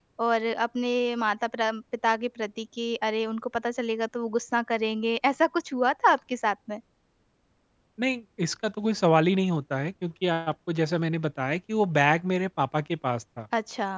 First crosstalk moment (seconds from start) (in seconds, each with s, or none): none